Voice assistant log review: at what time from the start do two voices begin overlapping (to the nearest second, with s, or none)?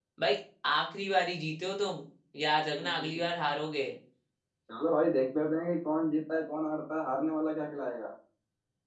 none